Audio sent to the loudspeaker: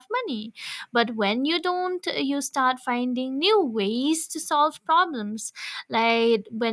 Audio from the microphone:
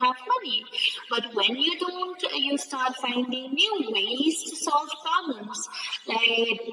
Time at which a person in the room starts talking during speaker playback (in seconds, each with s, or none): none